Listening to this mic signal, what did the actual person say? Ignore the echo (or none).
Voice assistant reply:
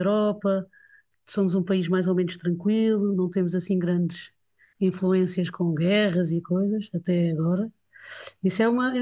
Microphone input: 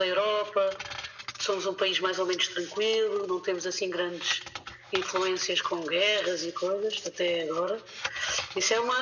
none